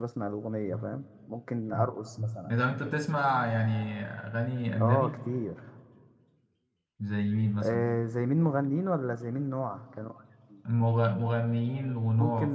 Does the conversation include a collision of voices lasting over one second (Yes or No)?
No